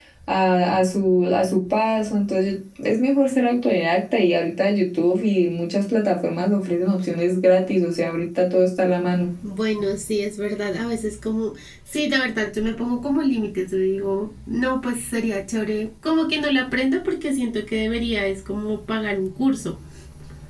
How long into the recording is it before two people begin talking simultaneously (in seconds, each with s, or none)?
none